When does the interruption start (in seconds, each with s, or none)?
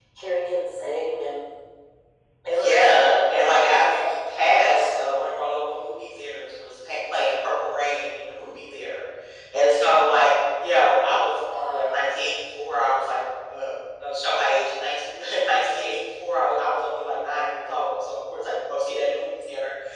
2.5 s